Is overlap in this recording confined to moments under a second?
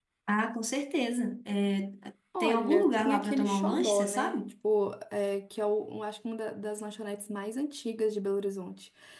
No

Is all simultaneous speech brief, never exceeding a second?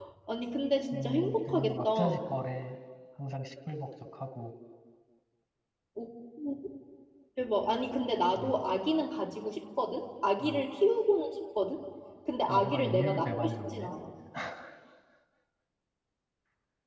No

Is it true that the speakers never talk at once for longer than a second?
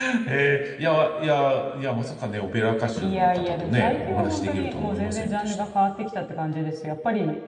No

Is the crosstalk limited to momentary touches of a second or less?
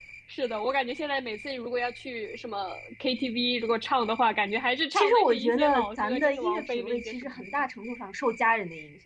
No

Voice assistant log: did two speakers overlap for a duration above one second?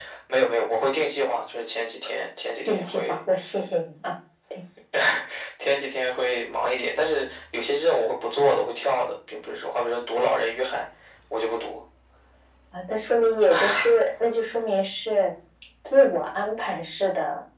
No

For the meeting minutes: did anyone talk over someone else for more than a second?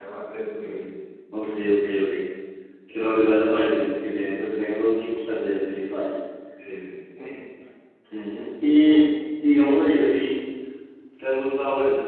No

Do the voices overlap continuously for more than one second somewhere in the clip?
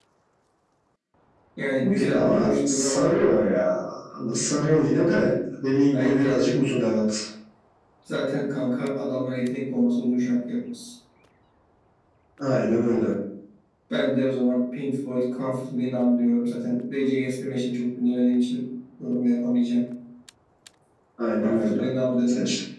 Yes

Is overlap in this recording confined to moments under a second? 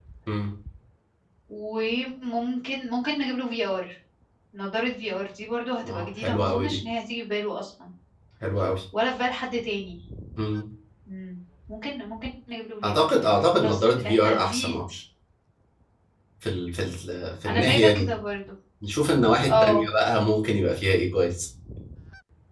No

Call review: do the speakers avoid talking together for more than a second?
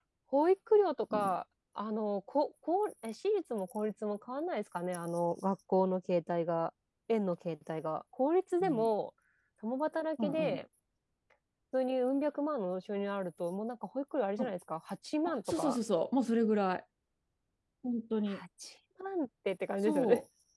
Yes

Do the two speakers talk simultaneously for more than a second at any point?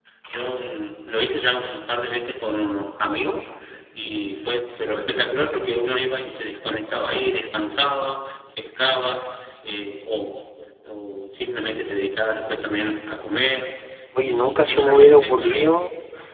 Yes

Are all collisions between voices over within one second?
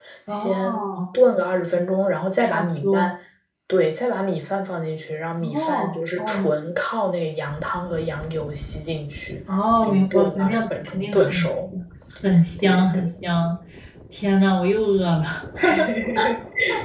No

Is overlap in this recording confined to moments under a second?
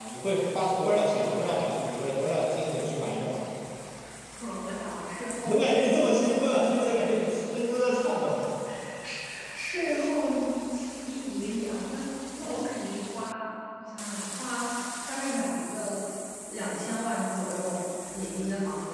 Yes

